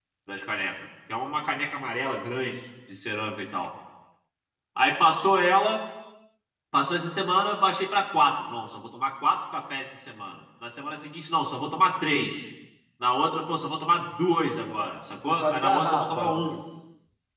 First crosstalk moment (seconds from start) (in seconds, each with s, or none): 15.3 s